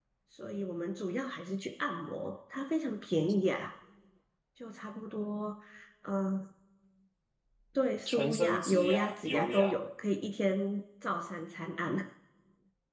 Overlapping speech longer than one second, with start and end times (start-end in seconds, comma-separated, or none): 8.1-9.8